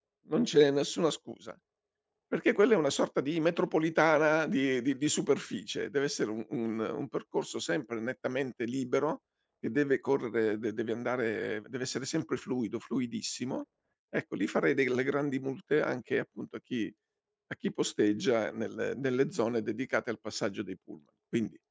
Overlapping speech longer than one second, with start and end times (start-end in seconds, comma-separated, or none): none